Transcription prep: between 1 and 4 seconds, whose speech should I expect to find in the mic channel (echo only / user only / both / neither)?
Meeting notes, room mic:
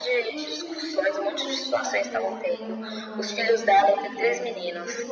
both